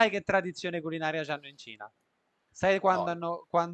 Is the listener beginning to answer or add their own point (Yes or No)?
No